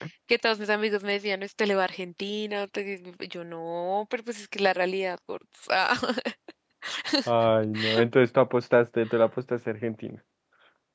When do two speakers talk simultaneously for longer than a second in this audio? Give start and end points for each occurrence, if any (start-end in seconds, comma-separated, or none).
none